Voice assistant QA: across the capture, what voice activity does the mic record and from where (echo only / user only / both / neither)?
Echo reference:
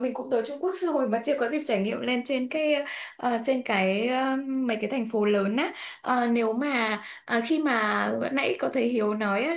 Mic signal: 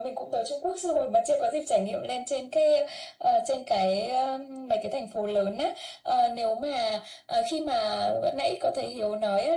echo only